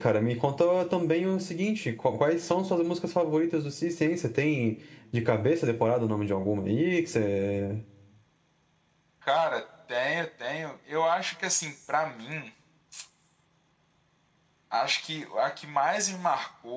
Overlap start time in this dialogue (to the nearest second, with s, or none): none